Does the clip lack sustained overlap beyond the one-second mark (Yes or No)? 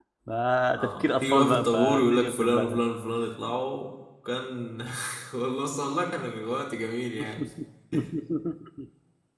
No